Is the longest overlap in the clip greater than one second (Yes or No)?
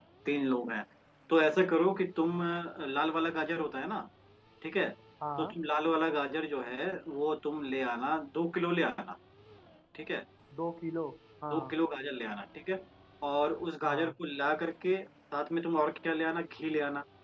No